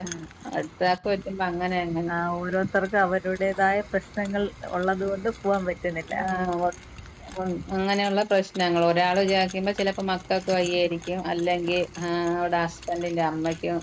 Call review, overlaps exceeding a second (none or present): none